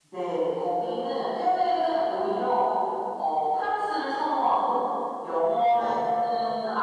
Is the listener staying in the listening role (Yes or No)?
Yes